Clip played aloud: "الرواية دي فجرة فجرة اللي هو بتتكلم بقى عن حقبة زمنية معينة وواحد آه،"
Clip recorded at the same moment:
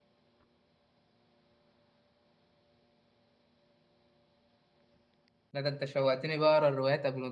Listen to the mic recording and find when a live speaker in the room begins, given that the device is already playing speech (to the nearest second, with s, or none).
6 s